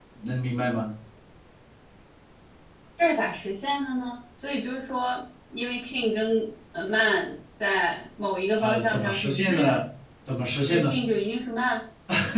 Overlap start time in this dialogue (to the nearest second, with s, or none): 9 s